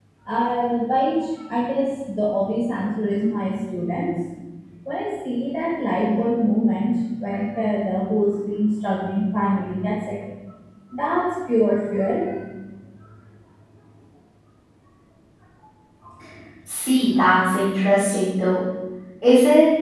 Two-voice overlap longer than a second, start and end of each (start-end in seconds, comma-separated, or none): none